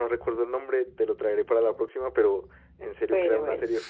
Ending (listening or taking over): listening